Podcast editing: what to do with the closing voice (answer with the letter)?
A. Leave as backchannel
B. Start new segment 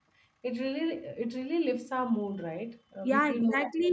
B